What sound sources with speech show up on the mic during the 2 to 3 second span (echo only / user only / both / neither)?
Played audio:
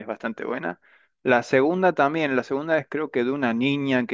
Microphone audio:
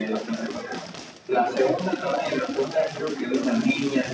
echo only